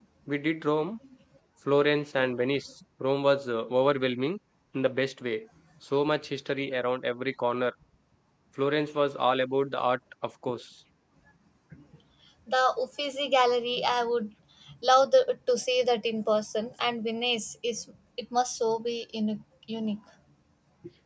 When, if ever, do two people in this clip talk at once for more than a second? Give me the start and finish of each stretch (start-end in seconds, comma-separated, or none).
none